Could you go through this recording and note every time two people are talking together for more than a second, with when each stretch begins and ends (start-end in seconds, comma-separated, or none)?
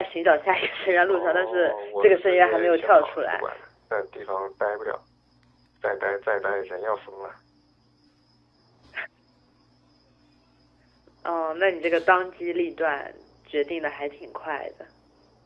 1.1-3.5